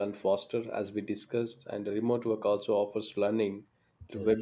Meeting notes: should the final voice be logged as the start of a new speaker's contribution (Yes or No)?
No